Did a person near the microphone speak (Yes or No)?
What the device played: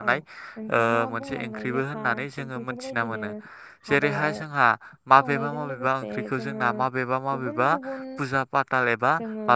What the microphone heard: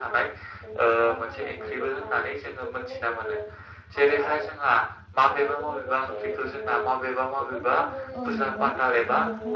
Yes